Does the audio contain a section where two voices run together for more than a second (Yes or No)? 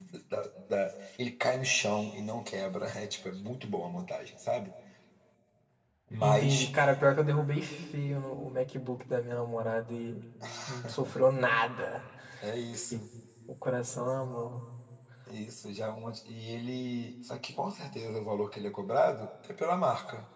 No